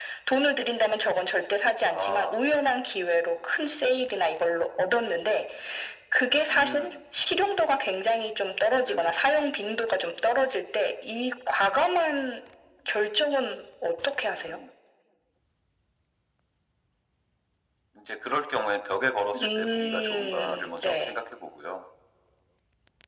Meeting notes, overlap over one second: present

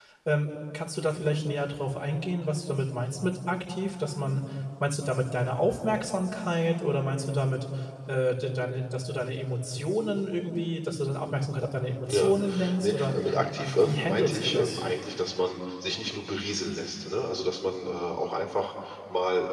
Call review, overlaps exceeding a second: present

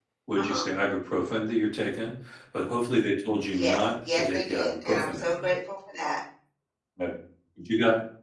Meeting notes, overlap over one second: present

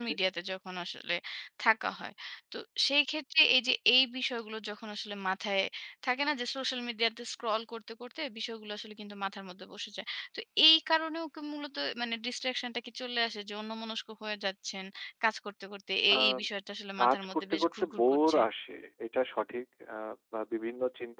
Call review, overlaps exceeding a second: present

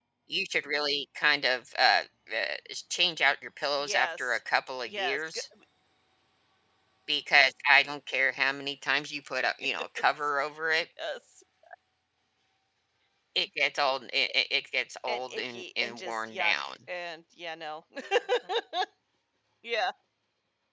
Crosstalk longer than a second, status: present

